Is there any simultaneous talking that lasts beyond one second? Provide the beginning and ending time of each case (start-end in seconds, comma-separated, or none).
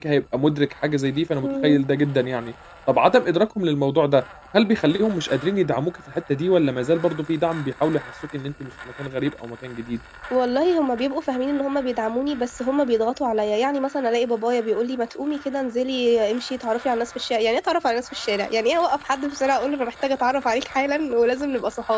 none